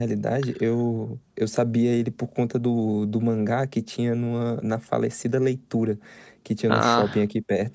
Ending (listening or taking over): listening